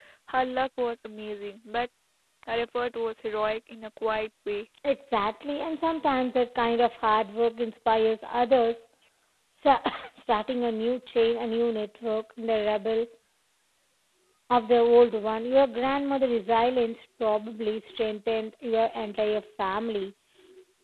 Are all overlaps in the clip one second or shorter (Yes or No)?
Yes